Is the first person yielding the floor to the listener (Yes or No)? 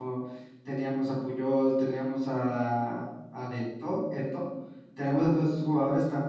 No